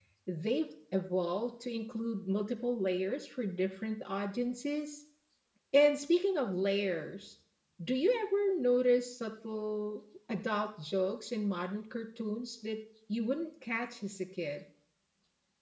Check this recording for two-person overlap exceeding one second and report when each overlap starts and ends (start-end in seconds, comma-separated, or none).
none